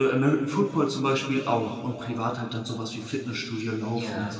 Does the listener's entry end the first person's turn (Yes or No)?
Yes